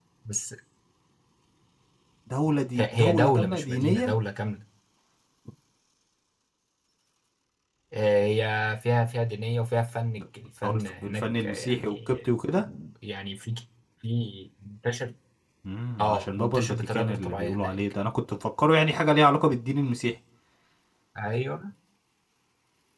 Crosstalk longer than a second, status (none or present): present